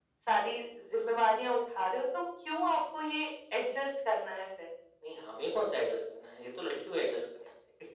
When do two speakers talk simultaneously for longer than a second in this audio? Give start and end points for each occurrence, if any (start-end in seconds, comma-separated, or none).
none